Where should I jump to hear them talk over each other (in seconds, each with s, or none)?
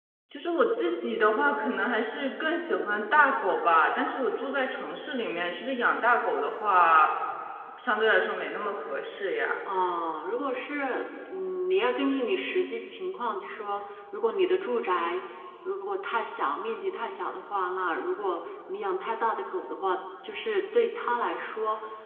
none